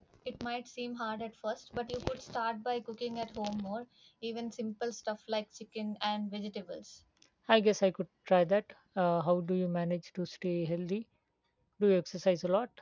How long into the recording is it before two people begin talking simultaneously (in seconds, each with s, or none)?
none